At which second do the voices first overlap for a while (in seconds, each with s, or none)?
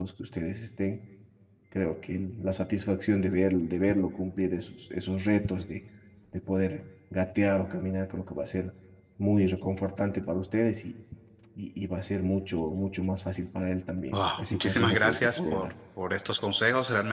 14.1 s